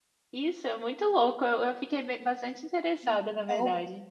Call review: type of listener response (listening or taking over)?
taking over